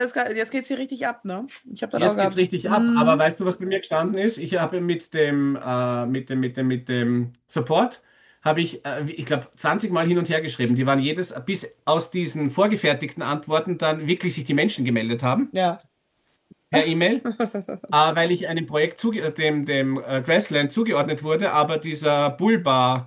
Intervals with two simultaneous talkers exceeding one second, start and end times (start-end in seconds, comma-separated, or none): 2.0-3.2